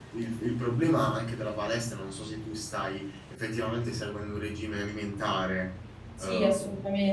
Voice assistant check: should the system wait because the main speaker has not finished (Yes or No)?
No